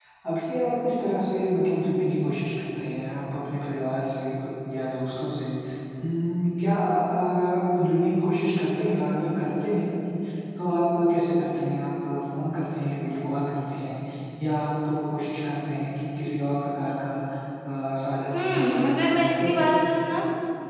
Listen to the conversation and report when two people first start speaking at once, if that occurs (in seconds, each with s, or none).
18.3 s